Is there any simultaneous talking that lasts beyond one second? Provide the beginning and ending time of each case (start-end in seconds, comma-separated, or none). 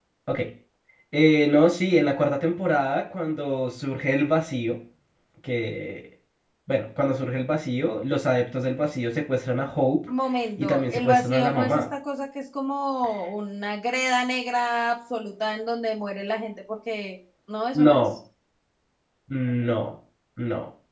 10.6-11.8